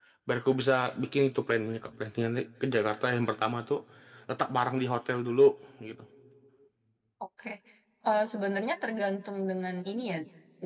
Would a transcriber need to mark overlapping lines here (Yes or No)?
No